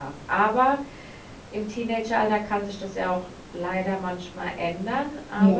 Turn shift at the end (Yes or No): No